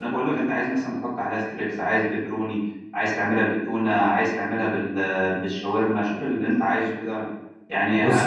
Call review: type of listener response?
listening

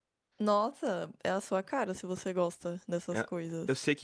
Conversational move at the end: taking over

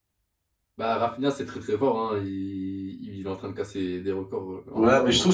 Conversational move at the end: taking over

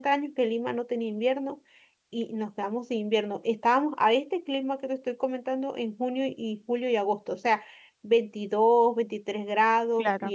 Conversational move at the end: listening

